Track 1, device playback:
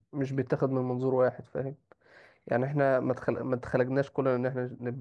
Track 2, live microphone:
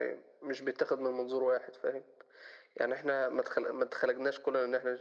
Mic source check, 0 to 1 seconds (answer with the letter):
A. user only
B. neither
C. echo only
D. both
C